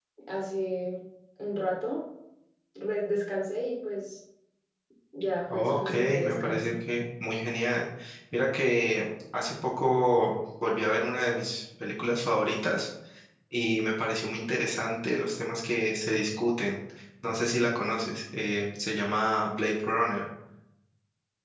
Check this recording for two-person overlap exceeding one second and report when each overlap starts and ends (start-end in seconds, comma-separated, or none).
5.5-6.7